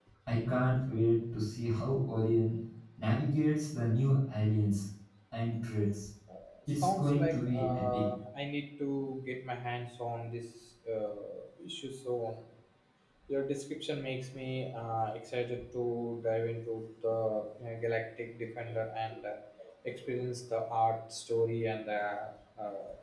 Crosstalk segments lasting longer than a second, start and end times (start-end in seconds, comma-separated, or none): 6.8-8.0